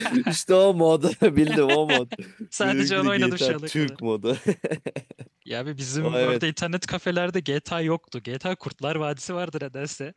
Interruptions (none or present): present